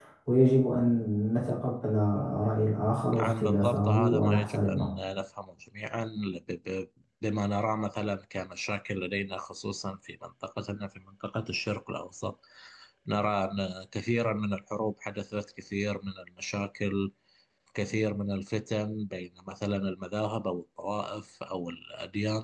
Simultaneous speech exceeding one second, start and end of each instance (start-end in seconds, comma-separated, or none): 3.1-4.9